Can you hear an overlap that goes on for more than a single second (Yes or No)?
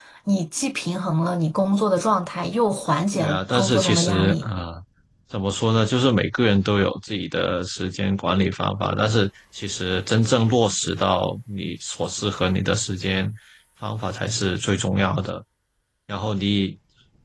Yes